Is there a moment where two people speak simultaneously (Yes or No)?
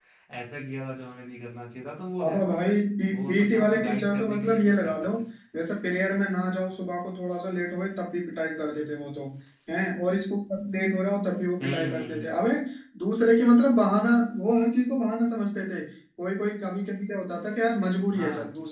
Yes